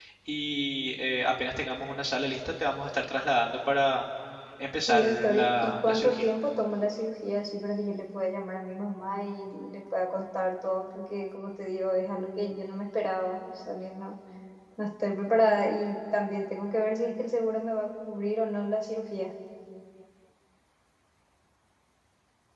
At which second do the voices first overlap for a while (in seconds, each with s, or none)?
4.9 s